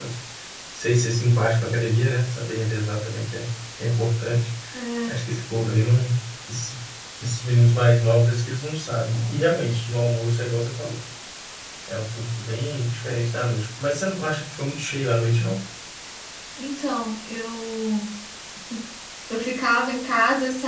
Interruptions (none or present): none